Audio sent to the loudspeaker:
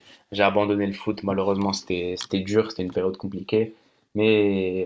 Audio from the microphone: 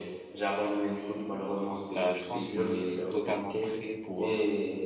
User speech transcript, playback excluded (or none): Bah, je pense qu'on est totalement prêt pour, euh,